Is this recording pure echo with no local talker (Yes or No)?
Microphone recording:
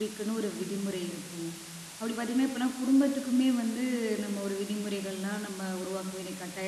No